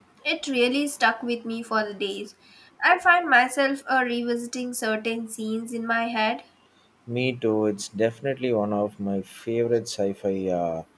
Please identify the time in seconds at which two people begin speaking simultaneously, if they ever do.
none

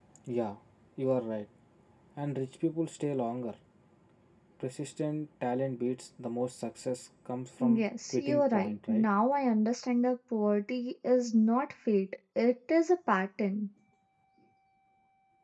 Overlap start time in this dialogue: 7.6 s

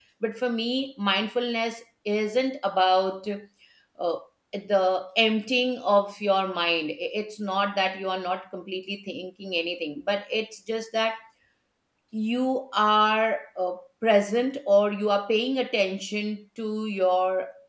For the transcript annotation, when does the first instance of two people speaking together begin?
none

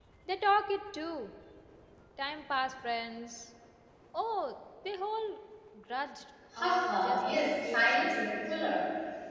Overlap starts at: 6.6 s

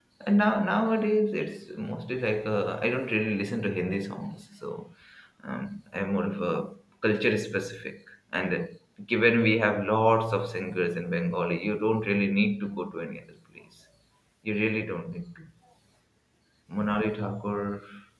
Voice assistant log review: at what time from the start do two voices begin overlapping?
none

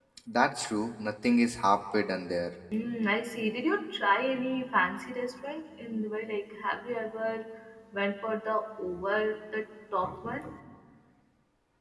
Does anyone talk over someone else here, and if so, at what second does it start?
none

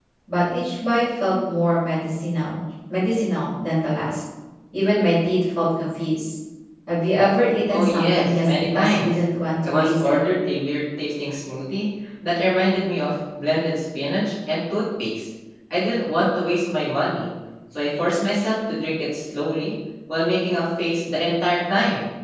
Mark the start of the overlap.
7.7 s

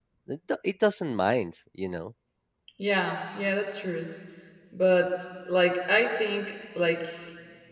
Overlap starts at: none

